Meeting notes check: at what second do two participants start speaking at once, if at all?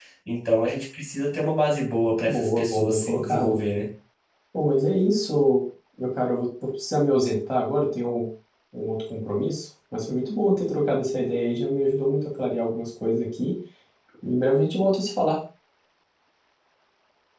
2 s

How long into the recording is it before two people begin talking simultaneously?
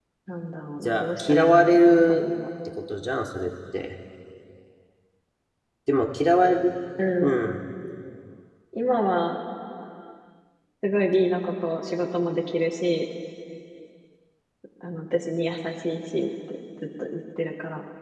1 s

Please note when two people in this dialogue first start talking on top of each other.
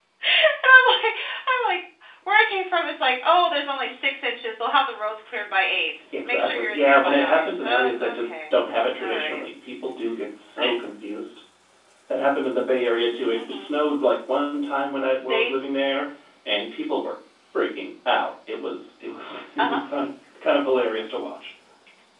6 s

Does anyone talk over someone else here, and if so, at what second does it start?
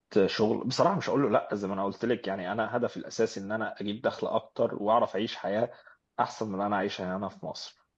none

